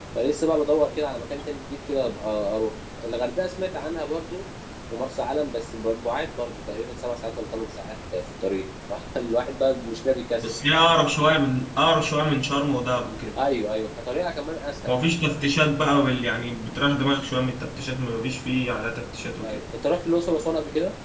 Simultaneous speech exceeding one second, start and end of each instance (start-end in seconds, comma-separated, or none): none